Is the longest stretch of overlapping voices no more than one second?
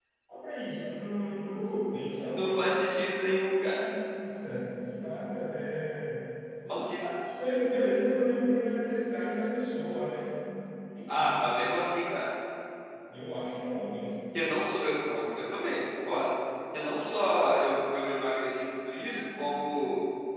Yes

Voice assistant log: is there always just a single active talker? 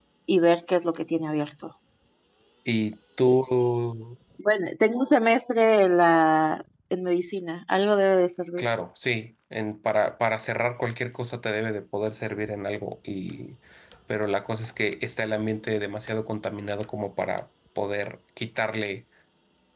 Yes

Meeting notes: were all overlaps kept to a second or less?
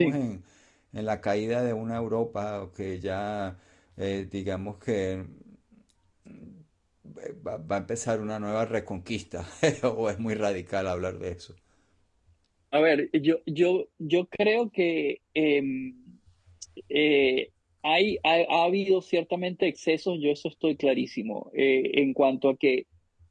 Yes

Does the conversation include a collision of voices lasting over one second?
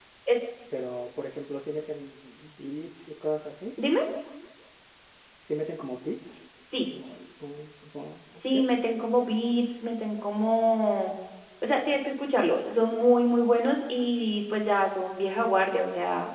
No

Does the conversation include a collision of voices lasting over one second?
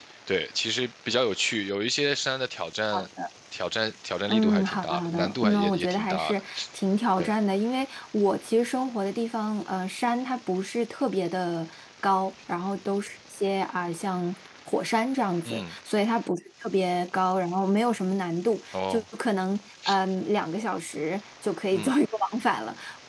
Yes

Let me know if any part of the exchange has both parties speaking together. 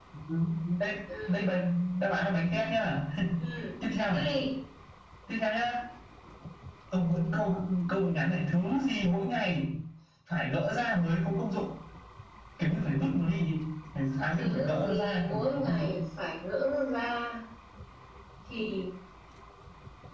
Yes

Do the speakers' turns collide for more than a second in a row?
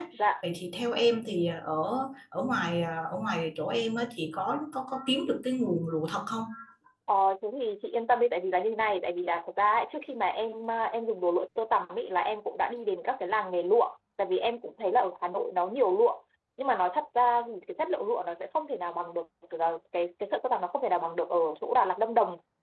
No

